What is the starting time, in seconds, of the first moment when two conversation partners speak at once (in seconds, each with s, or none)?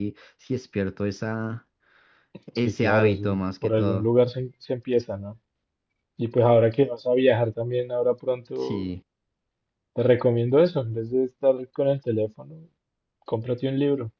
2.6 s